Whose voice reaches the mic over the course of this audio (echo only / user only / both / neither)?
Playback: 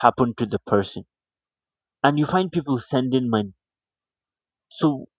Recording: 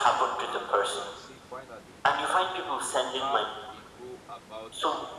both